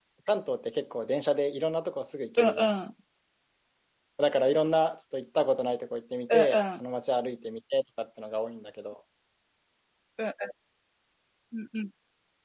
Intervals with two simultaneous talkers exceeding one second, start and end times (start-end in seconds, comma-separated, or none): none